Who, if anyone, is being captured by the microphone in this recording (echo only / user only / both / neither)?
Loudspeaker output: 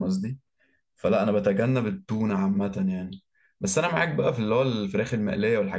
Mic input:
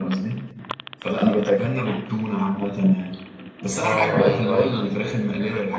both